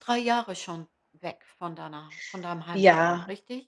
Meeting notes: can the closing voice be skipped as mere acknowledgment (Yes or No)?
No